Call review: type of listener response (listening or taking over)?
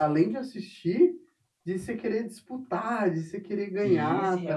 taking over